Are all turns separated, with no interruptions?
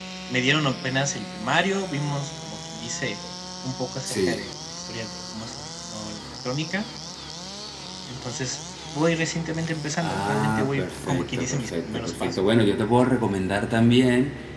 No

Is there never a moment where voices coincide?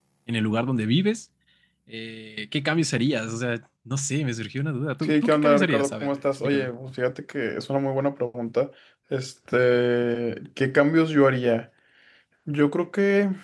No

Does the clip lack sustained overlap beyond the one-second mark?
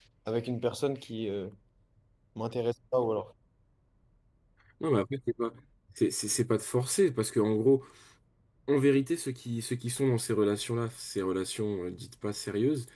Yes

